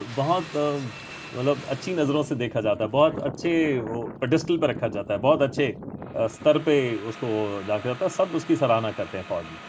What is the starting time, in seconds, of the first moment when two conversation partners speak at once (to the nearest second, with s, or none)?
none